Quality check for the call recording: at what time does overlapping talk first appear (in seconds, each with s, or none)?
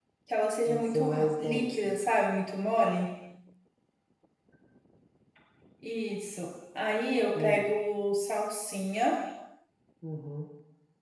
0.7 s